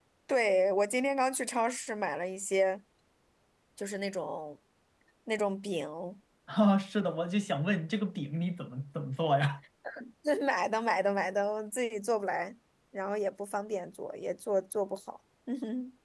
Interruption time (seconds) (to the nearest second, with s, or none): none